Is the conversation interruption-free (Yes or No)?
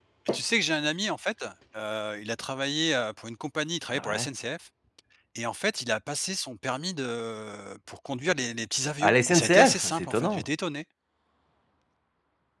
No